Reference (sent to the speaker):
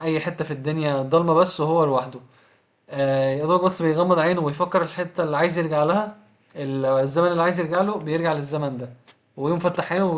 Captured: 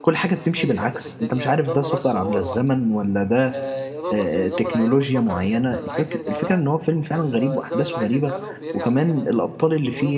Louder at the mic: user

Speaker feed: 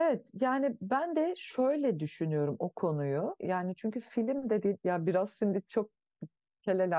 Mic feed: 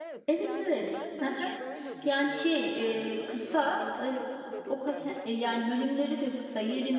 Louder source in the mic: user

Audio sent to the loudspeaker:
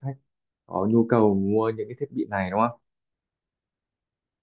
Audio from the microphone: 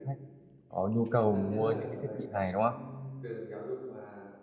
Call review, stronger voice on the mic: echo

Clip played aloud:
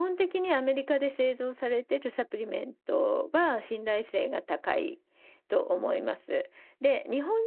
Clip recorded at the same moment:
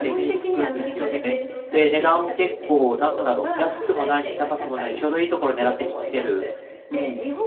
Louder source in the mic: user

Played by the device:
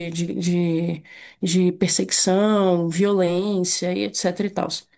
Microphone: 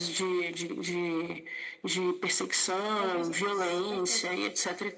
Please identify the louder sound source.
echo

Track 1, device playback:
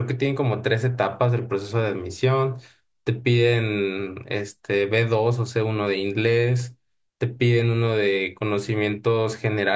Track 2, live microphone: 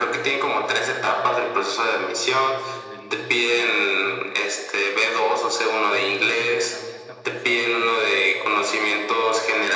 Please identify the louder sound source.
echo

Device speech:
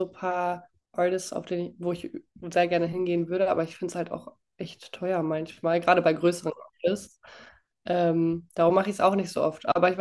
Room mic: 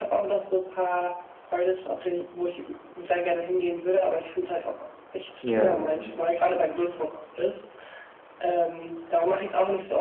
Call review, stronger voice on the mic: user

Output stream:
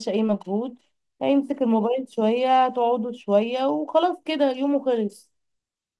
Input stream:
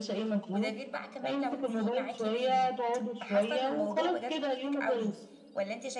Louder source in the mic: echo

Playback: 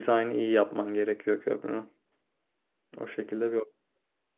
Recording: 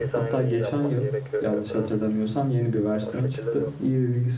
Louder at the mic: user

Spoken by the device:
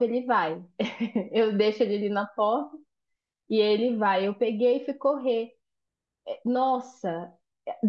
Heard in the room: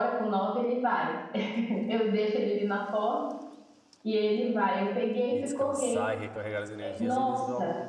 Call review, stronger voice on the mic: echo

